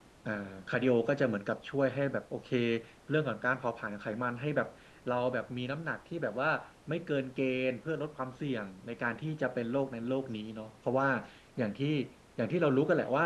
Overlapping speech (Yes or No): No